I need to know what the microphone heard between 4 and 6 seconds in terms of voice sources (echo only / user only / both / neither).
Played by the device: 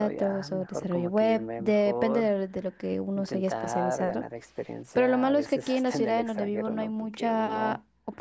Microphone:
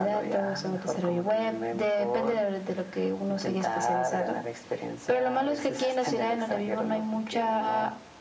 echo only